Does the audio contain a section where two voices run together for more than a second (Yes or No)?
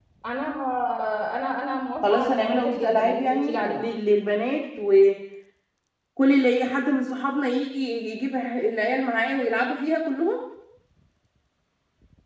Yes